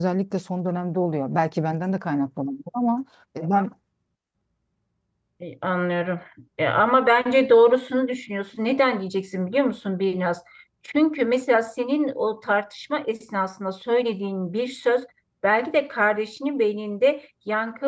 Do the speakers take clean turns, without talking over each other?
Yes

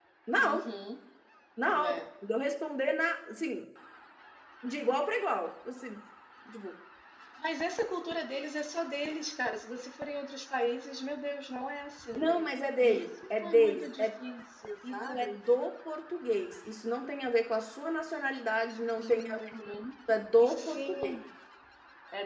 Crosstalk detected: Yes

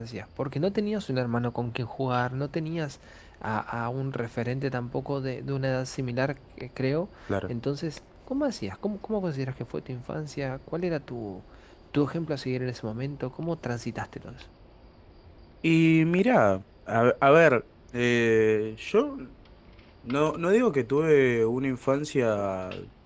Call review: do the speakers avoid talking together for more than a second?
Yes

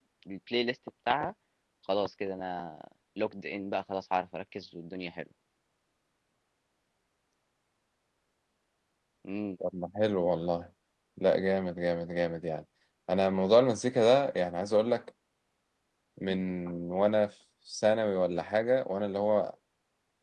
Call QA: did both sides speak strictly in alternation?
Yes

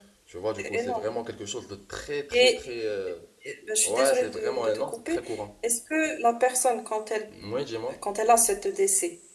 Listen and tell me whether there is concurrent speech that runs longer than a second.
Yes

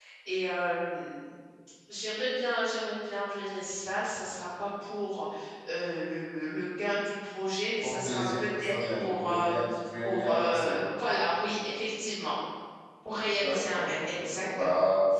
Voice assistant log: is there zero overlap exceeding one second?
No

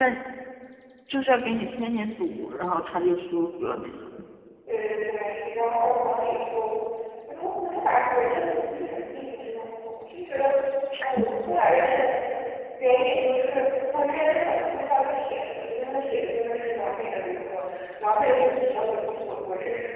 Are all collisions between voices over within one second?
Yes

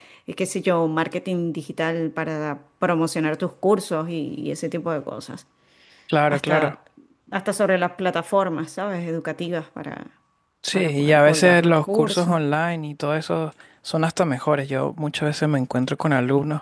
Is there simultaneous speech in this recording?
Yes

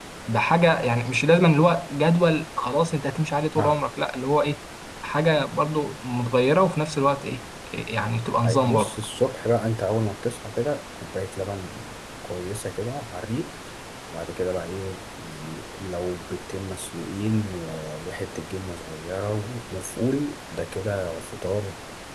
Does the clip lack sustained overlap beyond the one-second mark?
Yes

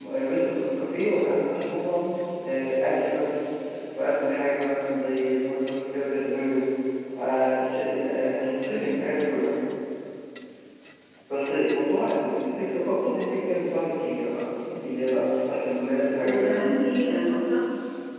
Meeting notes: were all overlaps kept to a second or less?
Yes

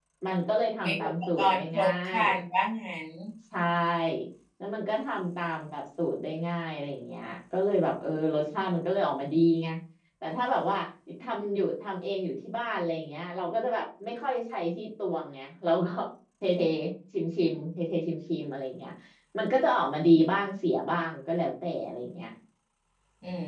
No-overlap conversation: No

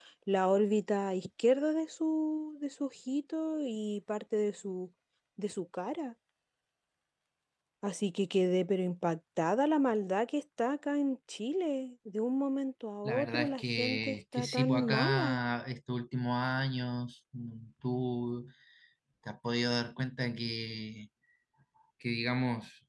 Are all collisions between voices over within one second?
No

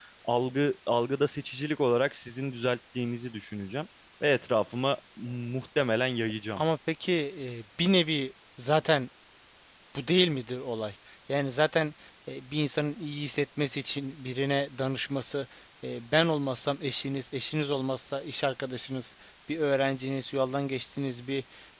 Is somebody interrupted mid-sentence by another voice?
No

